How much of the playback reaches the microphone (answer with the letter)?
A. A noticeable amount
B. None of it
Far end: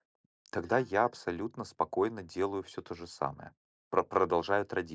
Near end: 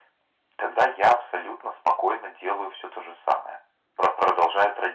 A